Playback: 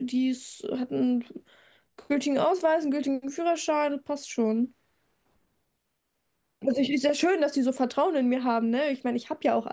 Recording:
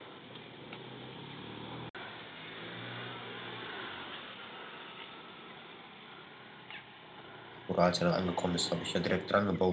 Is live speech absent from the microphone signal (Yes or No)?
No